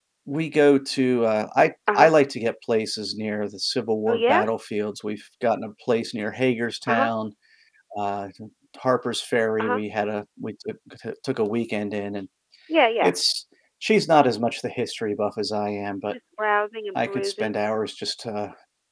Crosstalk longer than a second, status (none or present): none